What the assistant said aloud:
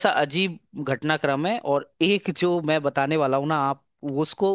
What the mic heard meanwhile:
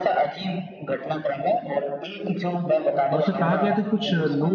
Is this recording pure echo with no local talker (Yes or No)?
No